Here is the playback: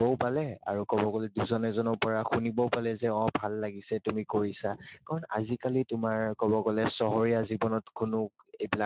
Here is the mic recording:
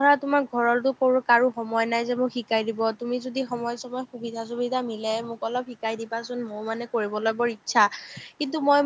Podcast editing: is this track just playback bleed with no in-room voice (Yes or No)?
No